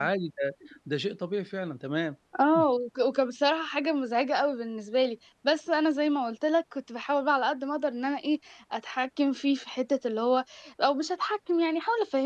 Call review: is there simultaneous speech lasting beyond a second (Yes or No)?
No